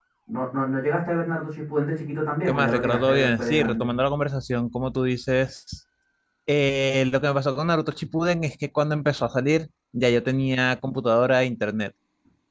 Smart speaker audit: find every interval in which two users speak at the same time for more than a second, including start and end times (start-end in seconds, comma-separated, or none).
2.5-3.9